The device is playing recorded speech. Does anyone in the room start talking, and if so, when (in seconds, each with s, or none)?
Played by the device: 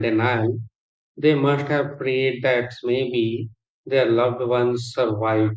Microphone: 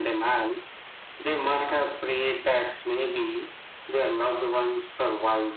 none